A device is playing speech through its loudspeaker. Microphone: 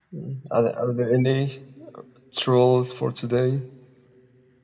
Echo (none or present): none